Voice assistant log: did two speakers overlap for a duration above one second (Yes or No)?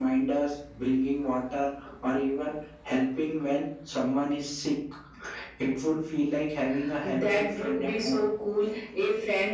Yes